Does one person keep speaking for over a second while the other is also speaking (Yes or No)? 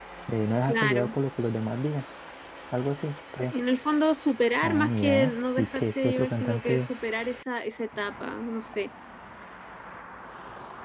Yes